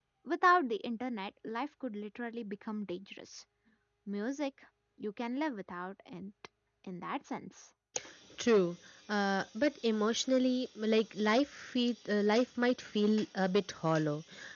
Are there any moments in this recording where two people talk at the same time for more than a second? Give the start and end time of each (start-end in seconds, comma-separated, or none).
none